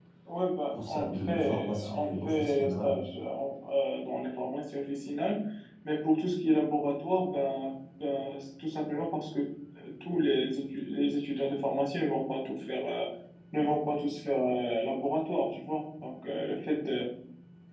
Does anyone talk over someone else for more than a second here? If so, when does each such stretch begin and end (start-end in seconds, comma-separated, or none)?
0.7-3.0